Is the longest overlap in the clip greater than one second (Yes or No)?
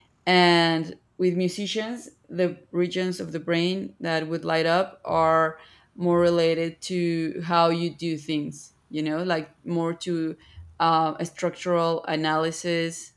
No